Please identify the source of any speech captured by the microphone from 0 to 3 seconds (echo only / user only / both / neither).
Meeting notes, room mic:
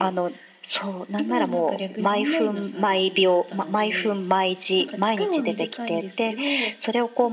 echo only